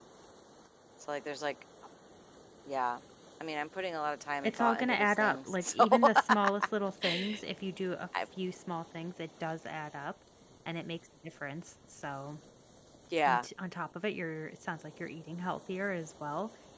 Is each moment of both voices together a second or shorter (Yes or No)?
No